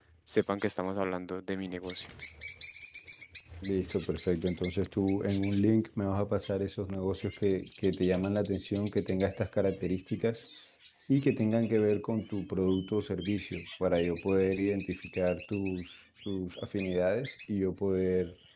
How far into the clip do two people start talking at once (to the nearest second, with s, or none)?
none